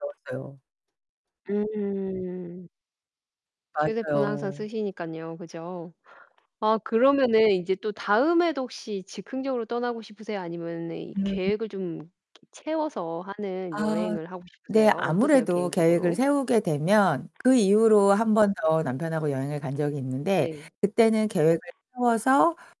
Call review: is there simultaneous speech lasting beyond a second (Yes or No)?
Yes